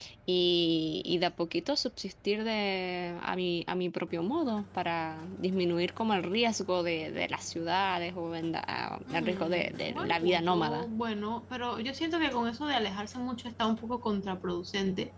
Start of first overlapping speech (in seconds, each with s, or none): 9.1 s